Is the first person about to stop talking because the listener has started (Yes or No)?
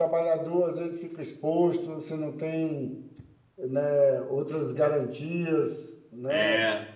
Yes